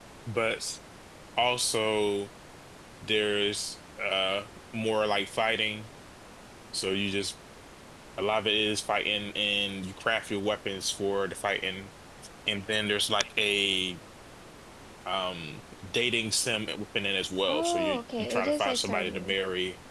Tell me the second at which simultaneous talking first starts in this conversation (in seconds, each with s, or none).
17.4 s